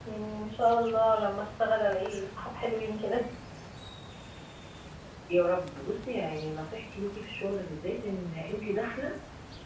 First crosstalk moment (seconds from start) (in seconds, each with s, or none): none